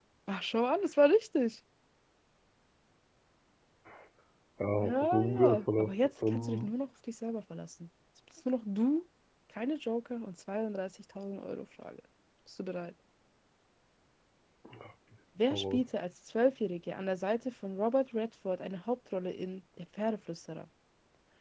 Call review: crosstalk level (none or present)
present